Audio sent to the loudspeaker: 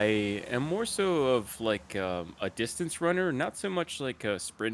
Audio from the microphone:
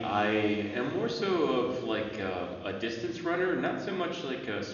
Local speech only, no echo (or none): none